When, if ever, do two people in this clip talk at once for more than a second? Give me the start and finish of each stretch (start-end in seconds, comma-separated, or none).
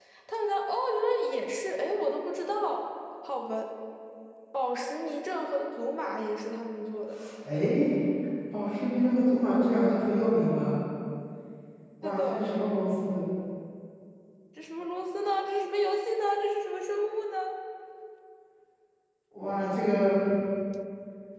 none